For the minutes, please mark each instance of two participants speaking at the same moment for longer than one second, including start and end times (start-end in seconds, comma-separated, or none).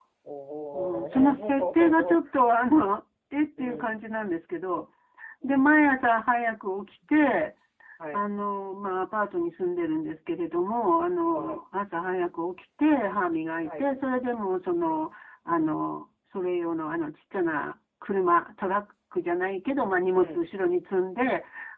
0.7-2.2